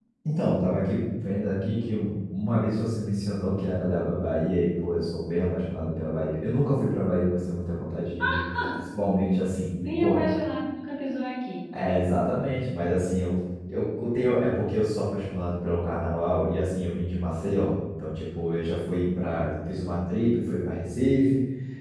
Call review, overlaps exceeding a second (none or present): none